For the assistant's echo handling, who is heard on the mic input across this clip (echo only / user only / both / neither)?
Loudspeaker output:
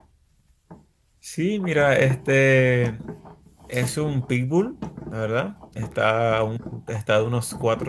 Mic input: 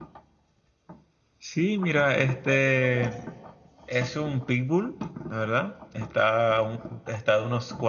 both